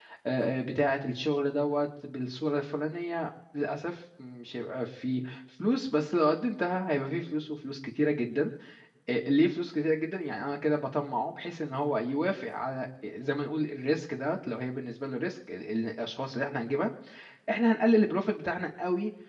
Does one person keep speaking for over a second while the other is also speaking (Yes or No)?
No